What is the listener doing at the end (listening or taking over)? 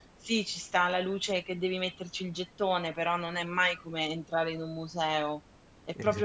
listening